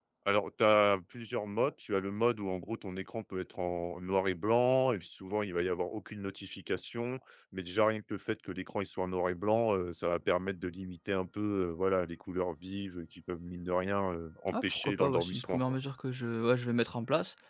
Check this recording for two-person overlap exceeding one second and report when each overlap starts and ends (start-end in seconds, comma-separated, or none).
14.5-15.8